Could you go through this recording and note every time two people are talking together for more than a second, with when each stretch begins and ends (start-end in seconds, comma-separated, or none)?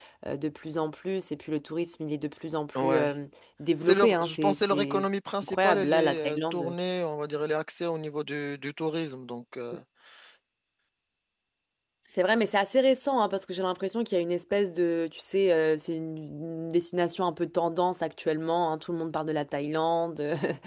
3.8-5.0, 5.4-6.7